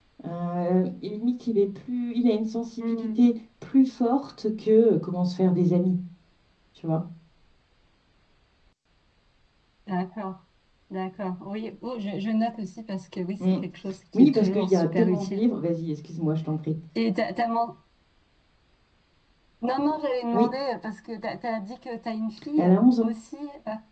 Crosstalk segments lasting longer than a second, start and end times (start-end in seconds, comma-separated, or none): 14.1-15.4